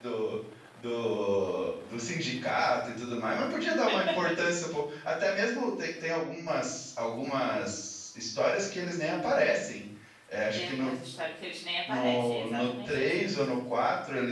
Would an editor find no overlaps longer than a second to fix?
No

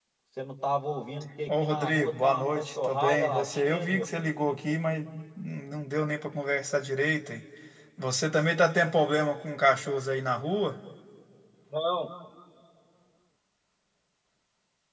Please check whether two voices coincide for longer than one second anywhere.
Yes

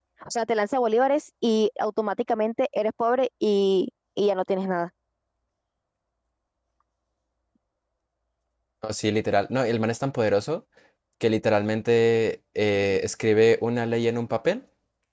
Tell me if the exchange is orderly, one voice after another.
Yes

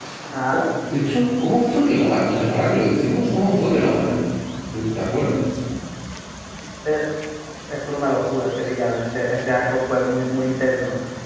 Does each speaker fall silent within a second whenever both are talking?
Yes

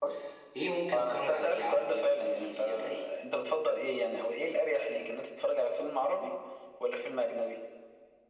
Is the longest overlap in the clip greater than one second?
Yes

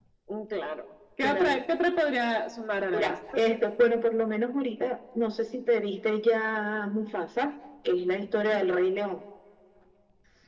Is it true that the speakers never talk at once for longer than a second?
Yes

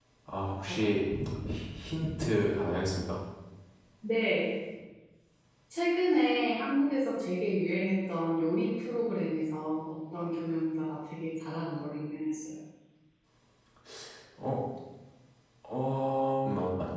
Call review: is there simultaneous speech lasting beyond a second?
No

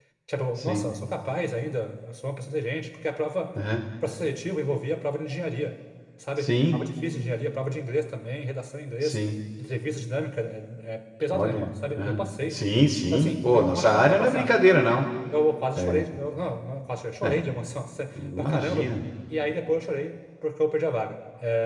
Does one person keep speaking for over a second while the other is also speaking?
Yes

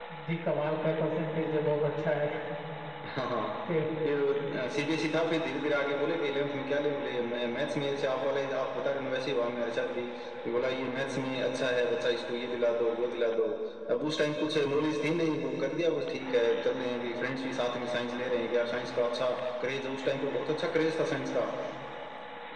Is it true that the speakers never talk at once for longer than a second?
Yes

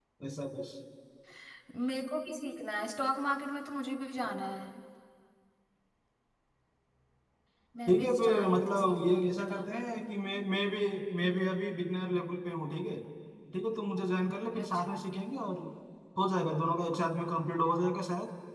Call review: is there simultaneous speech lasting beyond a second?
Yes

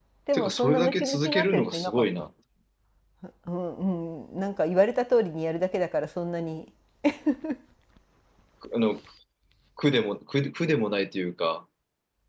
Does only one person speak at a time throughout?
No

